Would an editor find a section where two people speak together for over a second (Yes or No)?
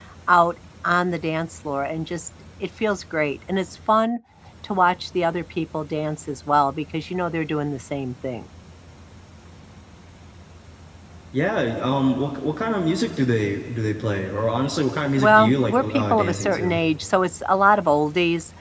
Yes